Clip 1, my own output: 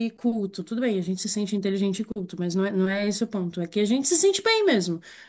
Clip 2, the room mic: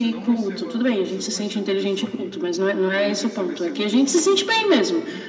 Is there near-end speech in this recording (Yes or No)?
Yes